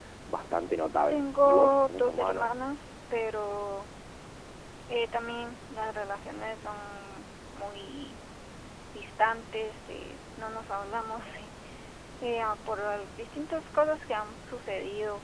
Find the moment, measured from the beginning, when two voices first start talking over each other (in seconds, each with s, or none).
1.1 s